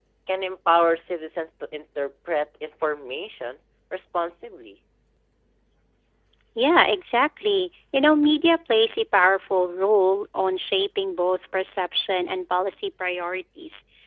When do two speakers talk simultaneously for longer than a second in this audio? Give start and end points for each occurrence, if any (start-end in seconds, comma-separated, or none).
none